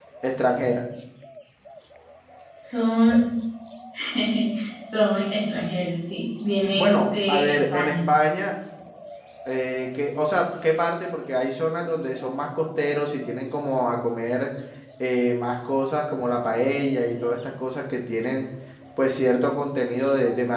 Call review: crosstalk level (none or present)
present